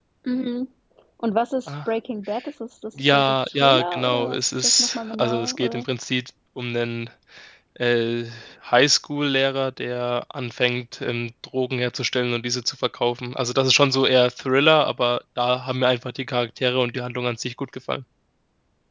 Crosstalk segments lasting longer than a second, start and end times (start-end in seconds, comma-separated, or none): 3.1-5.8